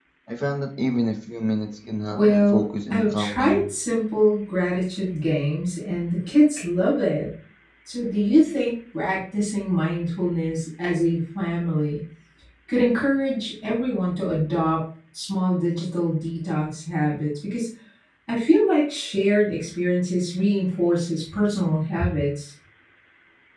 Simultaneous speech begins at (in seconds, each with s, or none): 2.1 s